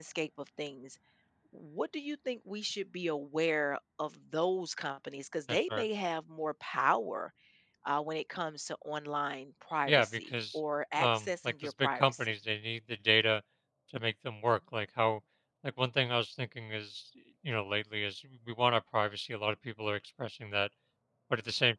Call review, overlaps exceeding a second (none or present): present